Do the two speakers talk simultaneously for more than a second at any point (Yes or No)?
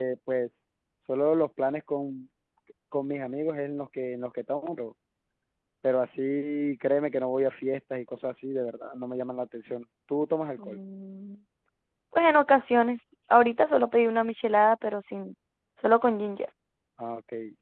No